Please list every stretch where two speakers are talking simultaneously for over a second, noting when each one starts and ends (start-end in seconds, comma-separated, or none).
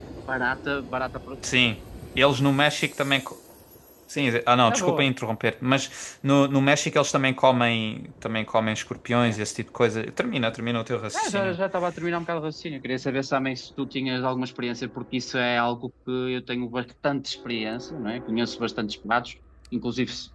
none